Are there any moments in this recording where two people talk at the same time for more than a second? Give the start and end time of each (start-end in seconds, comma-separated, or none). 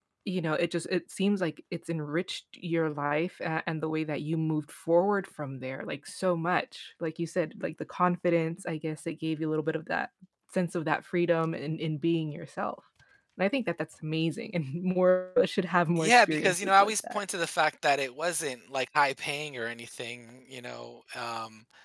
16.0-17.2